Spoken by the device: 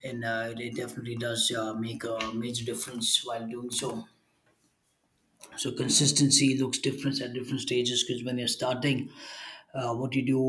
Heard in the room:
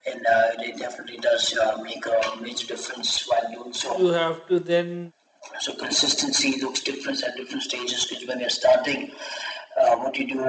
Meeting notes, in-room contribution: present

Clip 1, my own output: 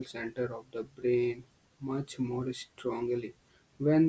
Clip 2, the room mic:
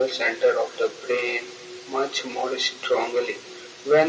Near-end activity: none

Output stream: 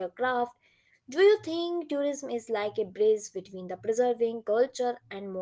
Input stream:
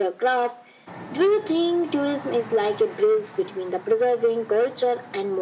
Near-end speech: none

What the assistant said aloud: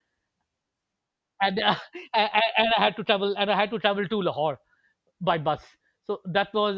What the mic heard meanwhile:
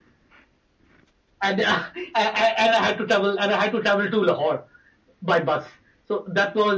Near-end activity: none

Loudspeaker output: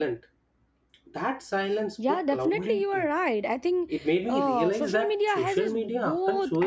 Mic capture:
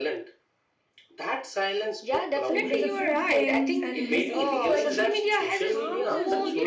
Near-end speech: present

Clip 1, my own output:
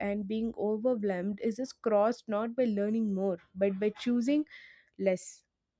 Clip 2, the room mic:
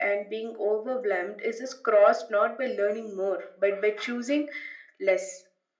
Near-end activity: none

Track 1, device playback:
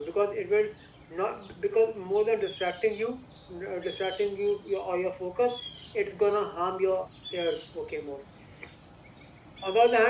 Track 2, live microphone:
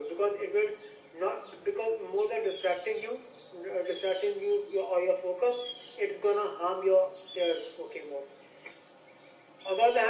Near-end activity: none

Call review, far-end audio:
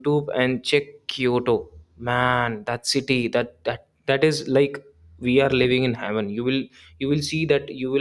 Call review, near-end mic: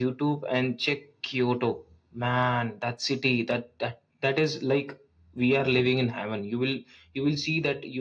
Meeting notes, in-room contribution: none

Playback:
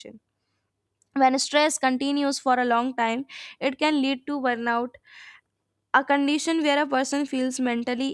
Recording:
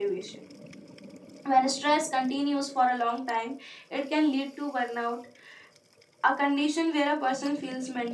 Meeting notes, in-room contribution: none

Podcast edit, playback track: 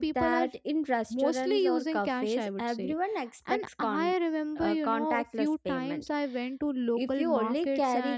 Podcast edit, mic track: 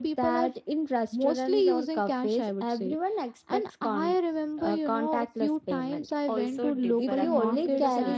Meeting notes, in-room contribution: present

